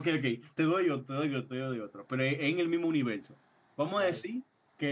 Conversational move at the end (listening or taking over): listening